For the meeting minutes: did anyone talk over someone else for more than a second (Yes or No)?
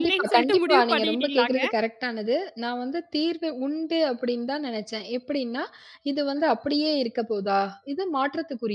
Yes